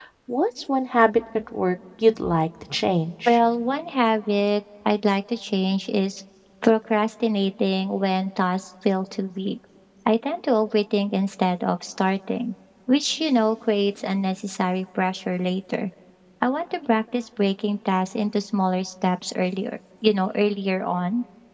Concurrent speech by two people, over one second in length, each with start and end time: none

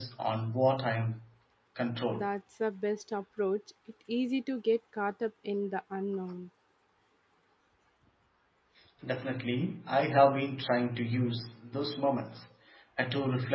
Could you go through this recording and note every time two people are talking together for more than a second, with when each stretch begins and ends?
none

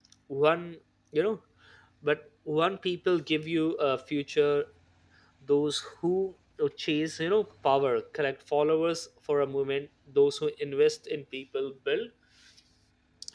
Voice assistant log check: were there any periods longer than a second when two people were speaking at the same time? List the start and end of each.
none

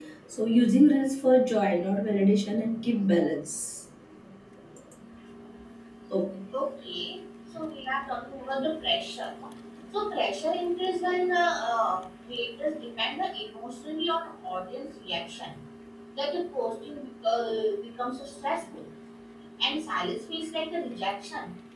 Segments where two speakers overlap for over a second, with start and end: none

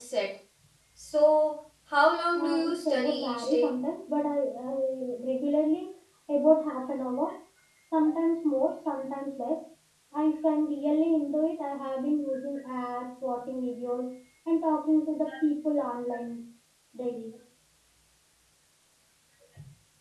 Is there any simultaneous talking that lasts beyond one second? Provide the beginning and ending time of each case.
2.4-3.8

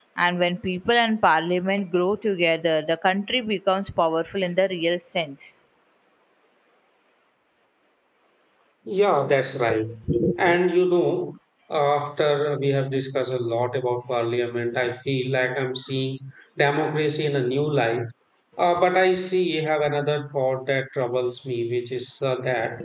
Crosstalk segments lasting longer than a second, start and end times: none

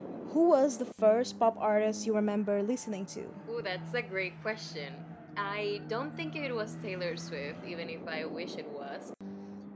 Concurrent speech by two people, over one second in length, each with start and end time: none

